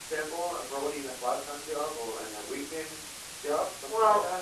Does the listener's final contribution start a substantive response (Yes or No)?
Yes